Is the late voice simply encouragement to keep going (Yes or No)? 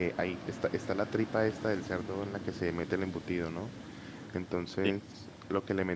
Yes